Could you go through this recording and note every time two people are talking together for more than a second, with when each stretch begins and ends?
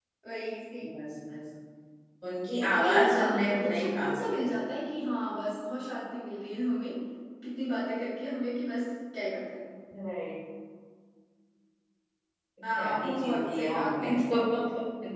2.6-4.4, 12.8-14.1

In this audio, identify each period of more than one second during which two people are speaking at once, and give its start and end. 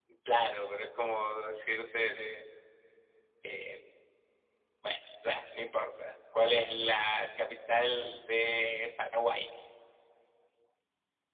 none

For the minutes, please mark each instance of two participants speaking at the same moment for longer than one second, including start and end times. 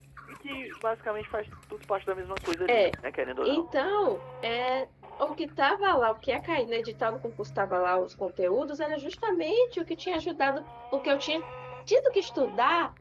none

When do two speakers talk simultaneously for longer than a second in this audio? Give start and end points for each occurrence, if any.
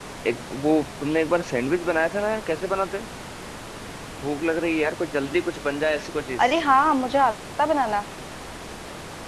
none

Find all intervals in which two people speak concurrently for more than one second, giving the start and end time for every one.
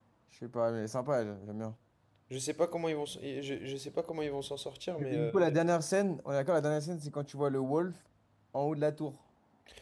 none

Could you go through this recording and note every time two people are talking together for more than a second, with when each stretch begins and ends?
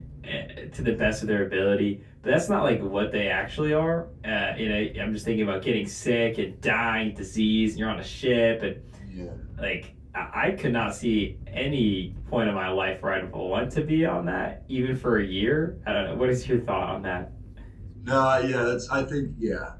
none

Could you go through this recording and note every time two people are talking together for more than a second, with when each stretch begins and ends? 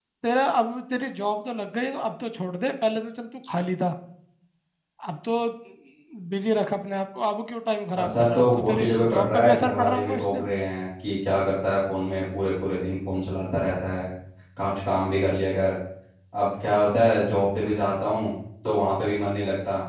8.0-10.4

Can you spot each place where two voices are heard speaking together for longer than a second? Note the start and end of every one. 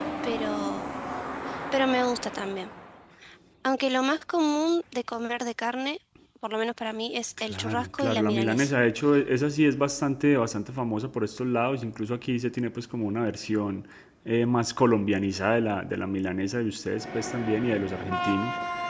7.5-8.7

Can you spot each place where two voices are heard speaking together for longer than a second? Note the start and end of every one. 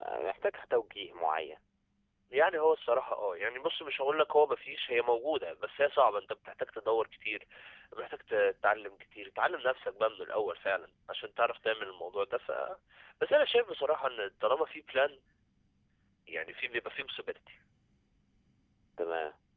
none

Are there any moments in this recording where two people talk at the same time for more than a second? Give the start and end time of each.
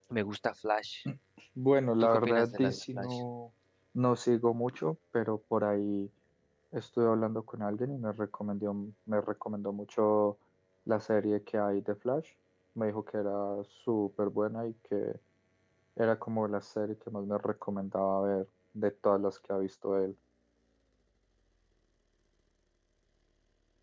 2.0-3.2

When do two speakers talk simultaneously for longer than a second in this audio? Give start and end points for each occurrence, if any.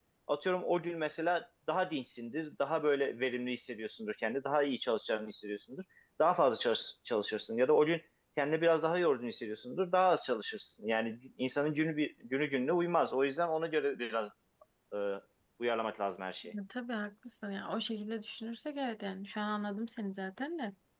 none

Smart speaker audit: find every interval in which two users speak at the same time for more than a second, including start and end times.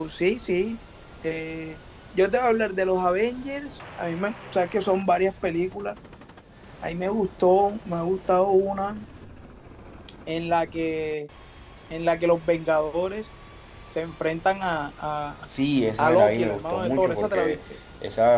16.0-17.6

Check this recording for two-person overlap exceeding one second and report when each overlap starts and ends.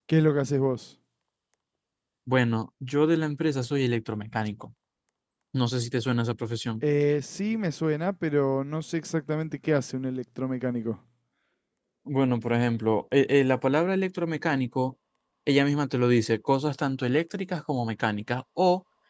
none

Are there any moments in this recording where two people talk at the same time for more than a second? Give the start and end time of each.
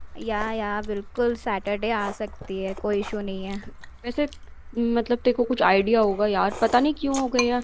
none

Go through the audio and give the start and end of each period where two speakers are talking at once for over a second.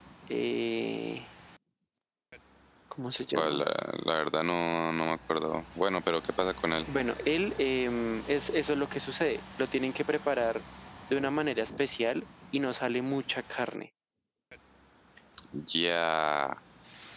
none

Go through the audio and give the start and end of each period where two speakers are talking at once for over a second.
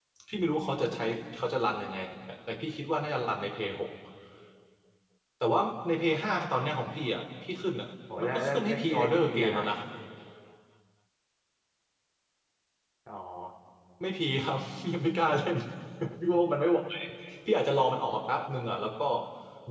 8.2-9.7

